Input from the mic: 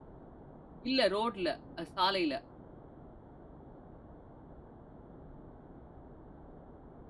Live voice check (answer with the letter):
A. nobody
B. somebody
B